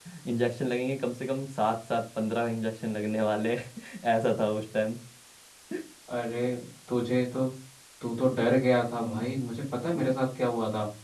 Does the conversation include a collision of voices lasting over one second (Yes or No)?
No